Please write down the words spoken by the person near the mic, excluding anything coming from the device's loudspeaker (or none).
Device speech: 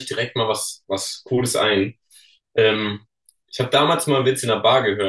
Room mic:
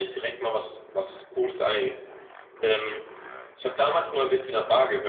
none